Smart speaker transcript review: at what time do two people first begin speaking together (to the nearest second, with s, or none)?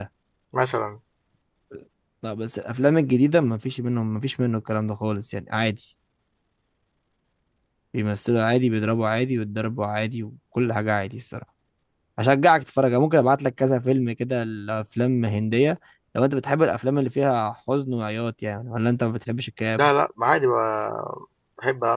none